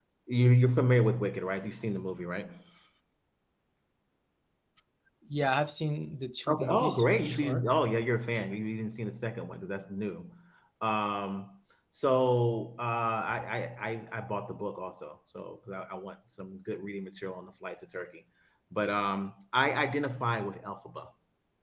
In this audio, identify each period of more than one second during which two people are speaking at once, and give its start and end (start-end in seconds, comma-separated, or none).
6.5-7.7